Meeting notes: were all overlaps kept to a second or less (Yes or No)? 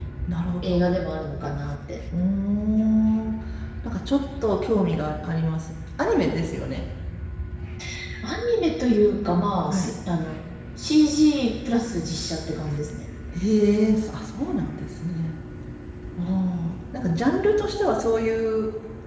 Yes